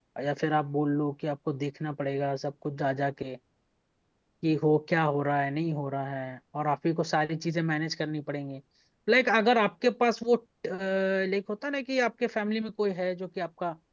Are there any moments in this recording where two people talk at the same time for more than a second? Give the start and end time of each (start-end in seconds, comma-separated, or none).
none